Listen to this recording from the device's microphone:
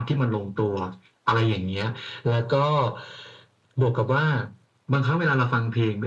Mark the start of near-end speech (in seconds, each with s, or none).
none